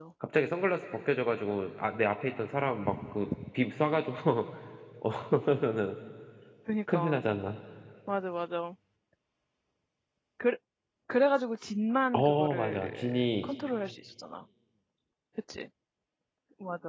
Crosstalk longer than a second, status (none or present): present